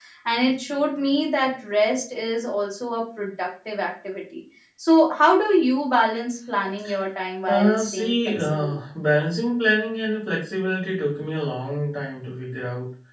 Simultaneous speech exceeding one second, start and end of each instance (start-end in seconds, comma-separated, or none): 7.5-8.8